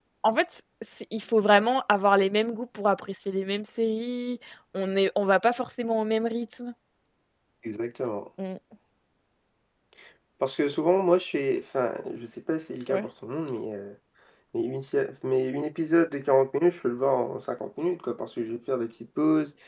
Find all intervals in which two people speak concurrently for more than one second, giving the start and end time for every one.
none

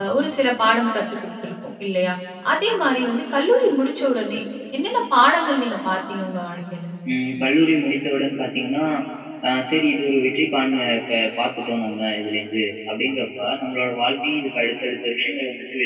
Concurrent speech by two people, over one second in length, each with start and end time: none

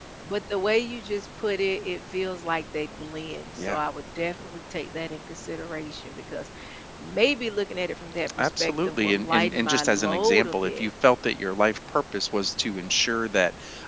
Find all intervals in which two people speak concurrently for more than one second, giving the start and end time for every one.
8.4-10.9

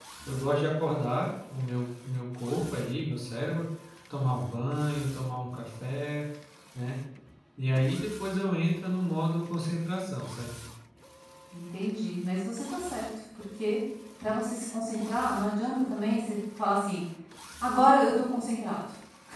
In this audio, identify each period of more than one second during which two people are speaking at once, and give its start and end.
none

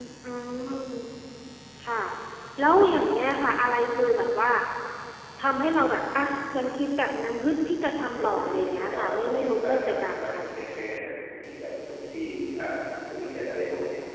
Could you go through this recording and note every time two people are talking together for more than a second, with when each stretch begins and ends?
8.2-10.4

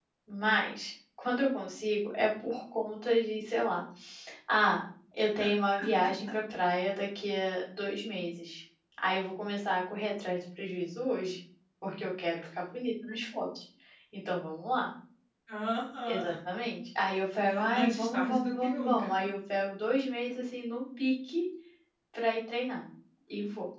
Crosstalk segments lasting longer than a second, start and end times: 17.7-19.3

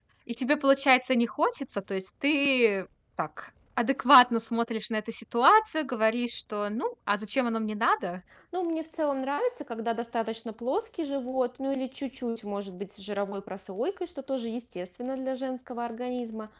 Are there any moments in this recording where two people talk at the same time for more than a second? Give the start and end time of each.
none

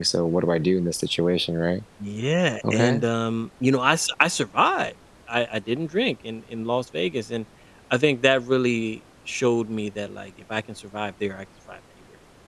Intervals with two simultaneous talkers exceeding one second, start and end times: none

